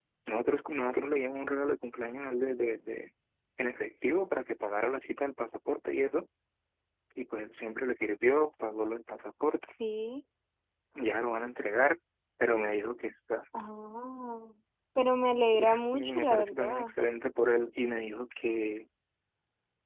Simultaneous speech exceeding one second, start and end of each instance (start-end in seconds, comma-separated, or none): 15.5-16.9